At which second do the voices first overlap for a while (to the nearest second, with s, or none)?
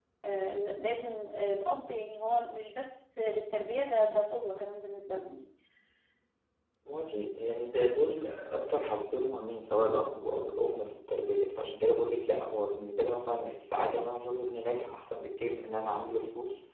none